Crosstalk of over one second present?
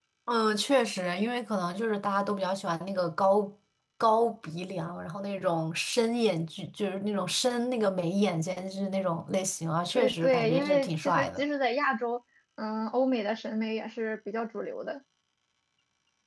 Yes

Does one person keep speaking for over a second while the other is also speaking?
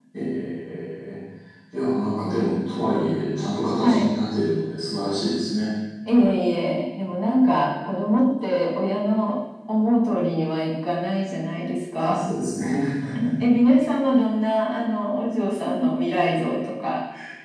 No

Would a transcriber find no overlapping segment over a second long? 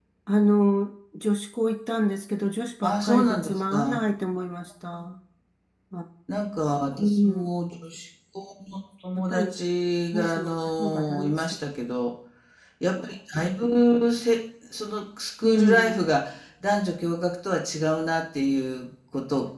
No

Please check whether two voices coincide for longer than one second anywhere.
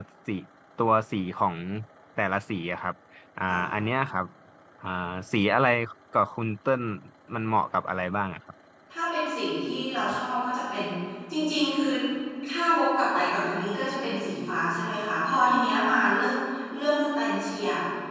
No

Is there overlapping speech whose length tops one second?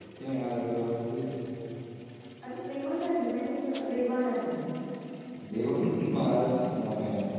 No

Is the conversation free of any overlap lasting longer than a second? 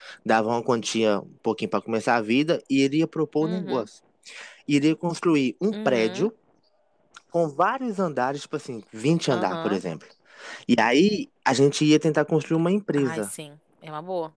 Yes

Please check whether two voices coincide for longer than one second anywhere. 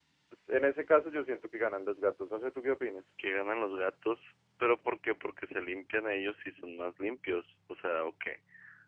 No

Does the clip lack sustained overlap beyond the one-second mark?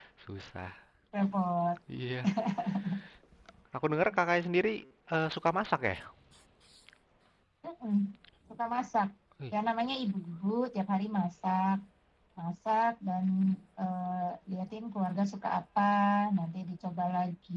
Yes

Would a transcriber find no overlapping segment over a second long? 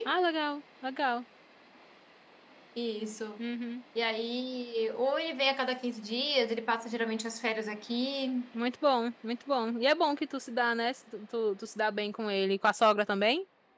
Yes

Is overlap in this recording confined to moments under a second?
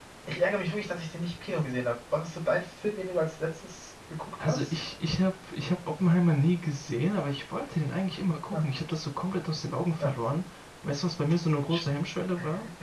Yes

